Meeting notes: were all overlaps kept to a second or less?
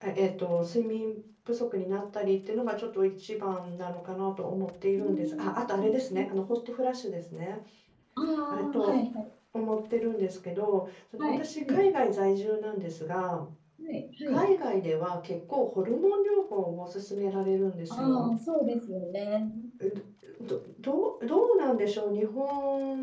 No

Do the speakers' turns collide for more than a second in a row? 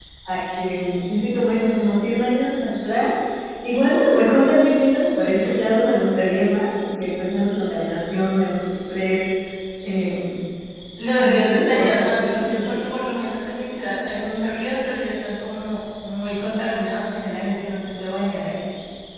Yes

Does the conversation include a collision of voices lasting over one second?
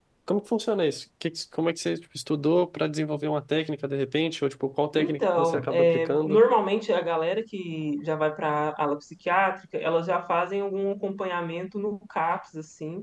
Yes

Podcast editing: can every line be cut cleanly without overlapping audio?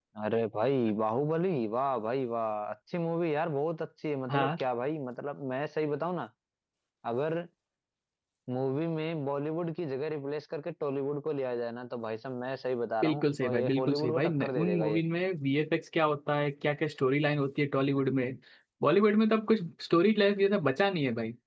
No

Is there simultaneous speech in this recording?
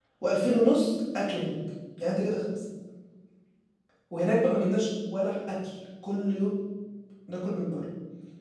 No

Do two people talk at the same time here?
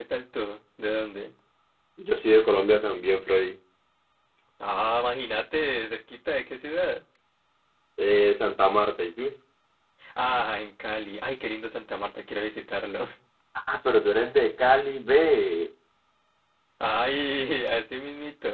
No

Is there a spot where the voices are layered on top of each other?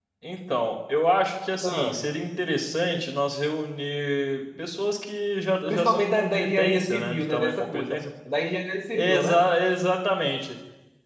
Yes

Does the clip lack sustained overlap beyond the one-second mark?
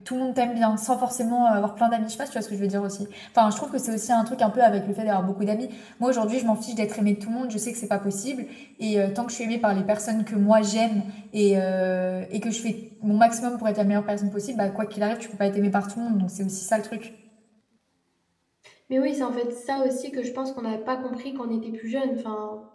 Yes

